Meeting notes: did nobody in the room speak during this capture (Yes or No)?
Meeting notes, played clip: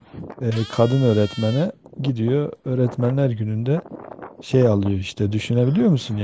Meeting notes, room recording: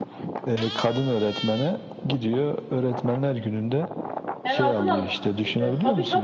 No